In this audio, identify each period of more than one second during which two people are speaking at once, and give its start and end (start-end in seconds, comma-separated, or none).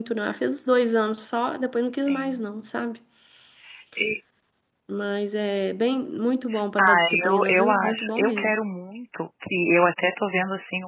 6.8-8.5